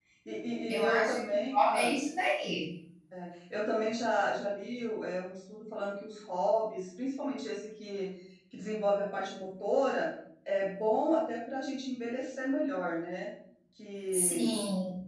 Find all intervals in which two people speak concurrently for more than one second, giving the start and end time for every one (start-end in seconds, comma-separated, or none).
0.7-1.9